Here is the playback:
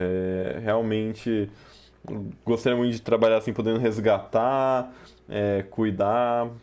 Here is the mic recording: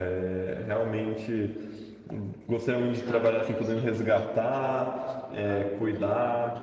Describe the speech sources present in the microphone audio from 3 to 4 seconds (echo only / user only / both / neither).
both